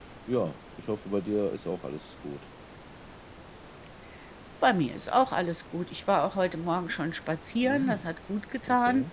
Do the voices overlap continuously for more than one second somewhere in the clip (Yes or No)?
No